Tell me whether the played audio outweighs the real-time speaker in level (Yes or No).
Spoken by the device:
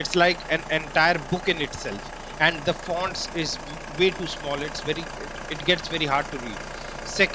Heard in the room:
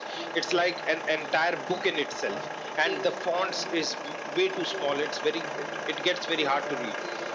Yes